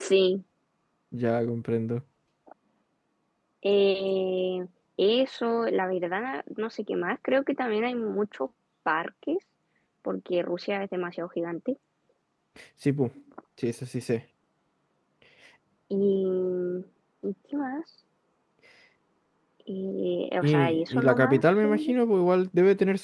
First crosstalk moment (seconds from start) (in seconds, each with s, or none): 20.4 s